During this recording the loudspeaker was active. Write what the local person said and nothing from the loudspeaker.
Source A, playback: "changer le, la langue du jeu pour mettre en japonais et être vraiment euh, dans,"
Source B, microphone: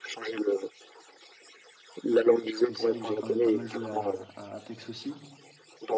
parce que c'est vrai que j'ai quand même pas mal joué à, à Apex aussi.

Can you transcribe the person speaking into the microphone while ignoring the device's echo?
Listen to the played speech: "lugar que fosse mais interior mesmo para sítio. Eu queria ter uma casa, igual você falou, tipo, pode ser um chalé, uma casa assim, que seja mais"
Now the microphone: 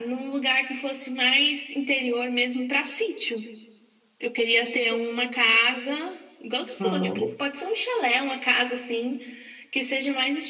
Hum.

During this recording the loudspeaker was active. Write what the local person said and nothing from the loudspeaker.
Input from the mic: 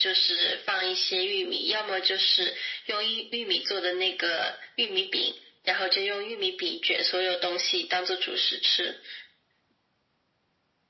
none

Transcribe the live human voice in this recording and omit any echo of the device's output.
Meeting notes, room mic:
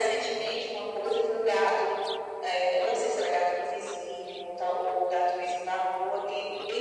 none

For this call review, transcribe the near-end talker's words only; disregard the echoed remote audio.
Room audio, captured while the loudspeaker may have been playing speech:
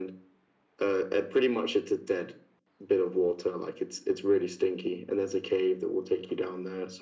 none

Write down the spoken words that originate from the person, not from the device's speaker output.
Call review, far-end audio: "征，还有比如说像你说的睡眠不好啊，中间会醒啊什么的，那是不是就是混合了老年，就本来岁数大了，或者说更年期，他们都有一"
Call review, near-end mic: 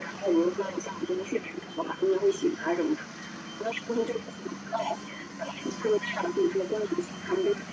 none

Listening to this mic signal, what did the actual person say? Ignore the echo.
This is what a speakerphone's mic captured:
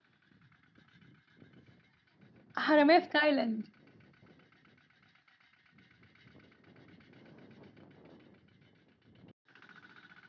حراميه في تايلاند

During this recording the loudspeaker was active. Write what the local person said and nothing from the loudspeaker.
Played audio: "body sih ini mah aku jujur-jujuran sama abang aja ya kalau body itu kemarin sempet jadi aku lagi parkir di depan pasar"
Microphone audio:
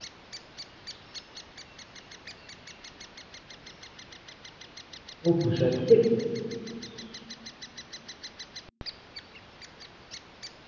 Oh, buset. Tapi

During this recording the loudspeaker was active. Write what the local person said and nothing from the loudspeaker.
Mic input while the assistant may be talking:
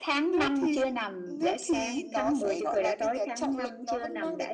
none

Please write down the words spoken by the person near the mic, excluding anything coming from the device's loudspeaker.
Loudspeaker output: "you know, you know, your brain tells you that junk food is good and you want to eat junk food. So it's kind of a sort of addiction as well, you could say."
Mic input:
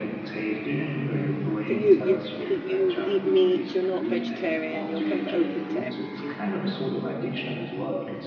so you you you eat meat, you're not vegetarian, you're kind of open to everything.

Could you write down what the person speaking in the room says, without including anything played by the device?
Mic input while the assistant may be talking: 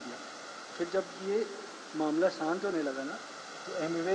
none

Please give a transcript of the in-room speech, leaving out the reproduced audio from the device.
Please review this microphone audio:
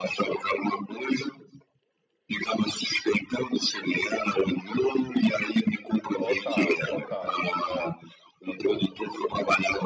total, total, é, total.

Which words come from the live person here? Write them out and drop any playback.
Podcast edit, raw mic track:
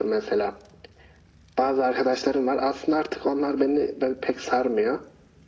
none

